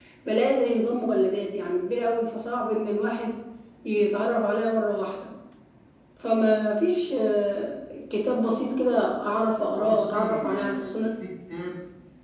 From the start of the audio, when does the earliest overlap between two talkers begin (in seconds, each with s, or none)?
9.7 s